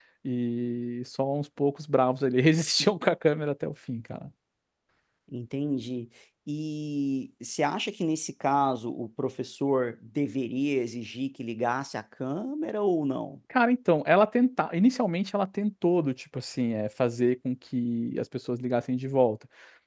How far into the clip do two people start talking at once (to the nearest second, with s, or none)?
none